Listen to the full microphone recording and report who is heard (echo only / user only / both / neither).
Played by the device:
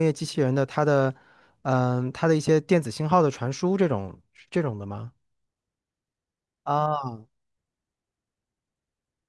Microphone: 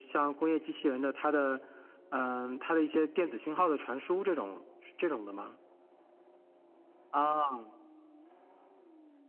echo only